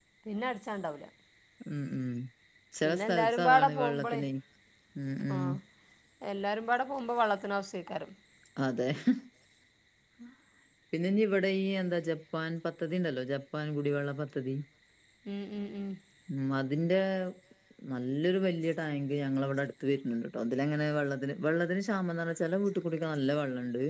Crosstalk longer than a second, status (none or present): present